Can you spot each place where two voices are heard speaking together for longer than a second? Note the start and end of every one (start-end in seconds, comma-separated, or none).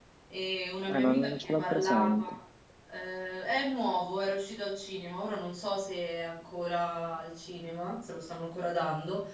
0.9-2.4